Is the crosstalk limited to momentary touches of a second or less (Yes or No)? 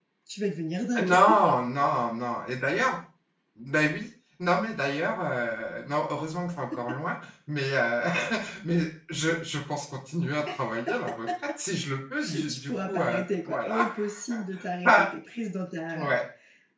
No